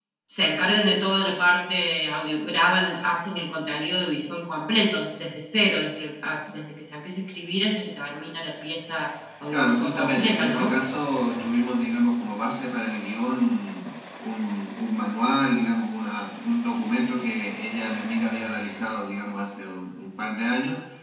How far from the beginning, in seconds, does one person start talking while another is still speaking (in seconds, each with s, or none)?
9.5 s